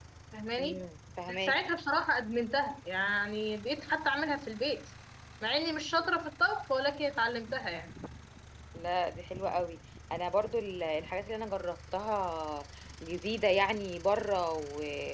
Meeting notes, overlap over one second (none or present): none